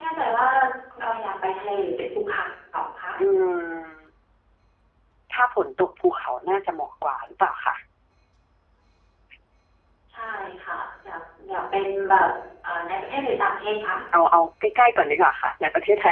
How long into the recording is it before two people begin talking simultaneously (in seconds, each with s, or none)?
none